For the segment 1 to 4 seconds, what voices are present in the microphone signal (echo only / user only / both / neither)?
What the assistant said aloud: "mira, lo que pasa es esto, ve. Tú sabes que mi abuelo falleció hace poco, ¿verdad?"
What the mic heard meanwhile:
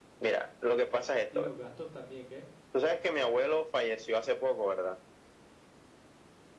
both